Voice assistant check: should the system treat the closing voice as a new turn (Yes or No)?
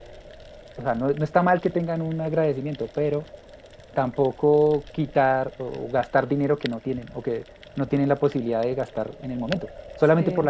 No